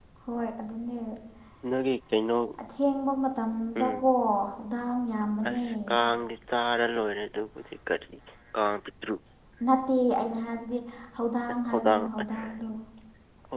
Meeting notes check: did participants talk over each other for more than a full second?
No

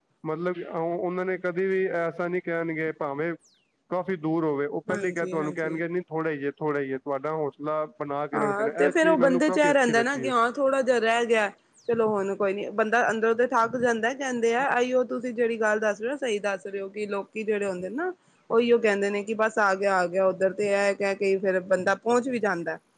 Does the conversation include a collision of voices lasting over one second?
Yes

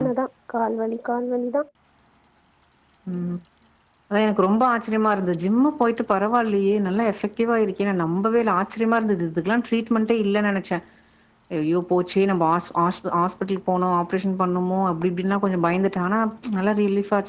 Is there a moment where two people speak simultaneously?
No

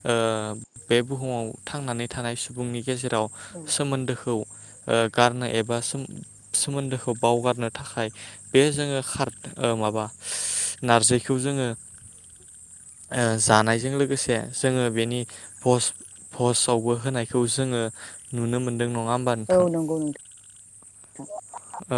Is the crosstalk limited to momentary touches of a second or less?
Yes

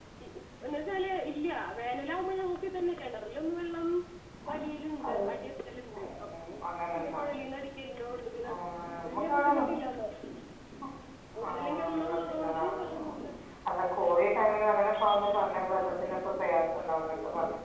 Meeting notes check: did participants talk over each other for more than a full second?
Yes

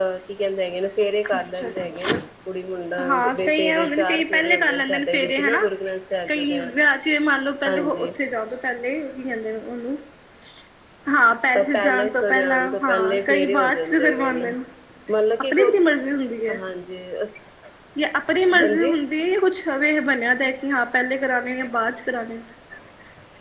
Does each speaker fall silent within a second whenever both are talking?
No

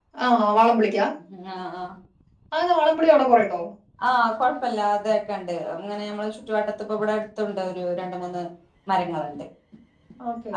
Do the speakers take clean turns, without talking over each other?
Yes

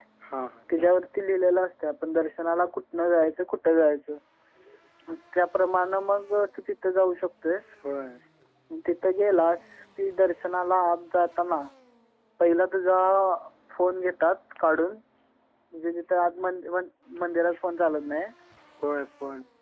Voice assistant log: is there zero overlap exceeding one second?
Yes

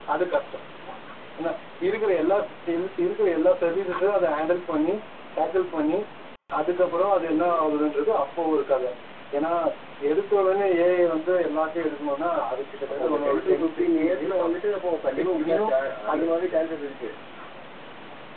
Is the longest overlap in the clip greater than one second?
Yes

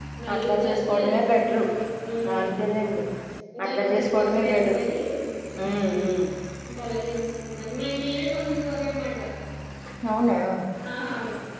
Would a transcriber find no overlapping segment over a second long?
No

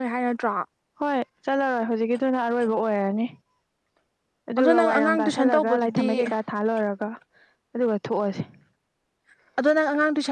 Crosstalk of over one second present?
Yes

